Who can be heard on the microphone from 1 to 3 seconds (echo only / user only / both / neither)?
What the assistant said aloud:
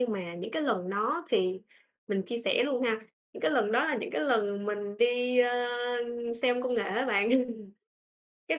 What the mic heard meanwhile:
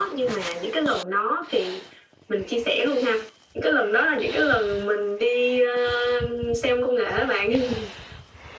echo only